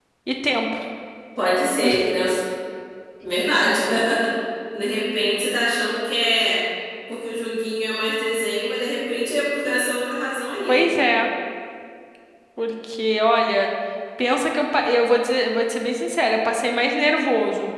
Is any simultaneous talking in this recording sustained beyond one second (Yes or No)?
No